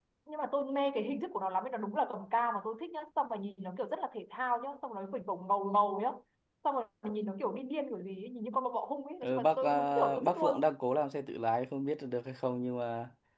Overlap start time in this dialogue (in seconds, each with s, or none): 9.2 s